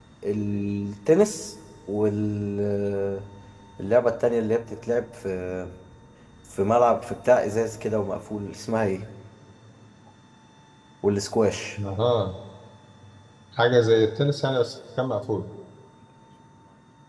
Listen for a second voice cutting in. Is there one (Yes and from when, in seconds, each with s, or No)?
No